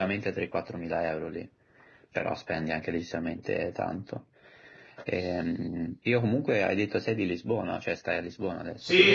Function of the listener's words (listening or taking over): taking over